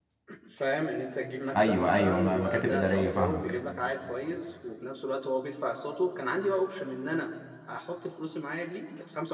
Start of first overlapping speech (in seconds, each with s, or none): 1.5 s